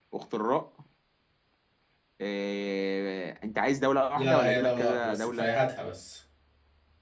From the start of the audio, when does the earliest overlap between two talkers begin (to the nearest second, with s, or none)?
4 s